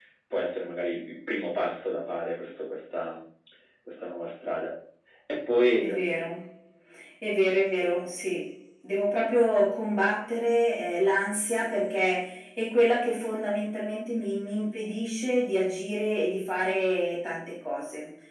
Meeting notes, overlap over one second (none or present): none